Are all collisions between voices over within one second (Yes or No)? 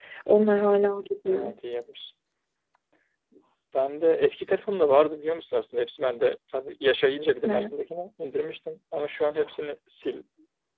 Yes